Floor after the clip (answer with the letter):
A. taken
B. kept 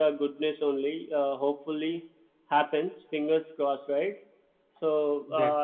B